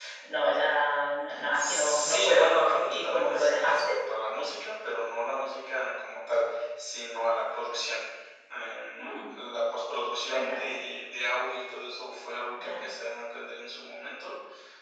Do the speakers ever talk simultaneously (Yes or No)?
Yes